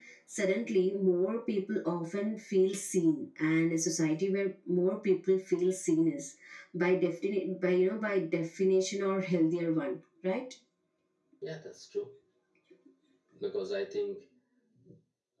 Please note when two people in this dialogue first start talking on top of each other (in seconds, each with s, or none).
none